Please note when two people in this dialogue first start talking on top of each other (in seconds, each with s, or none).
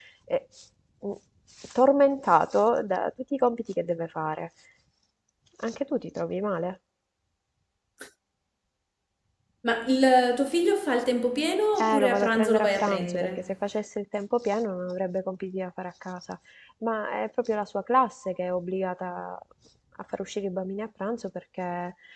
11.8 s